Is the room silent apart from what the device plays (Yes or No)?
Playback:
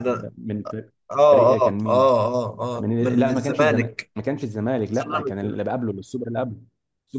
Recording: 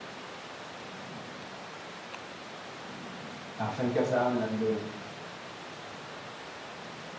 No